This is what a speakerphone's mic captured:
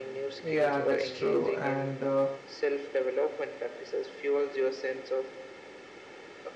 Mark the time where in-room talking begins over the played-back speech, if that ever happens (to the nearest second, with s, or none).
0 s